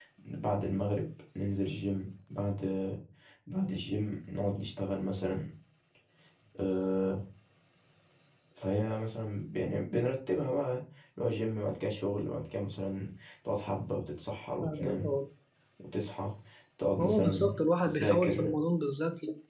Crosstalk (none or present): present